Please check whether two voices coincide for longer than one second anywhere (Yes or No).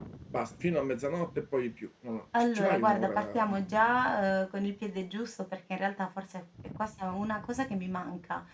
Yes